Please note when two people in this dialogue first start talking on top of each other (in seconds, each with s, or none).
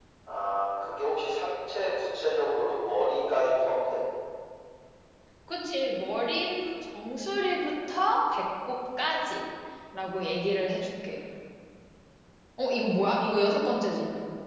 none